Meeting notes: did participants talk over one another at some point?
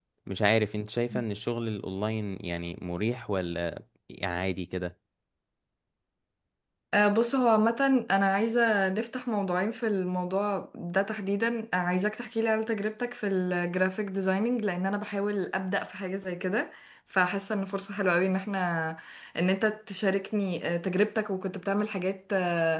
No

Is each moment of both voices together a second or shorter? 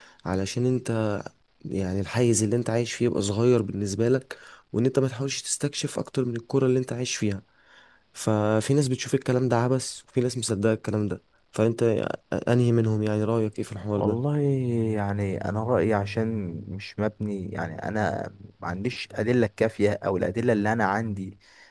Yes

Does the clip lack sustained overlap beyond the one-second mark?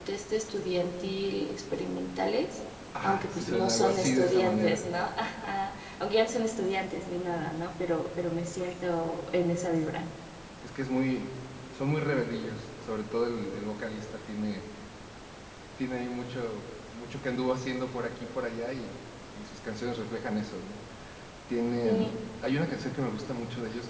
No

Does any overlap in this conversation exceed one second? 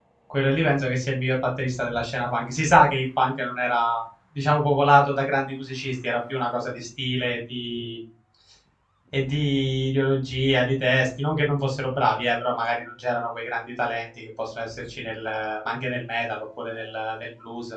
No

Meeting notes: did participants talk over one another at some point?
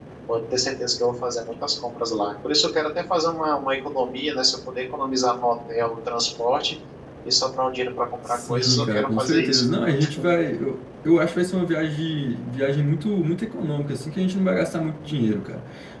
Yes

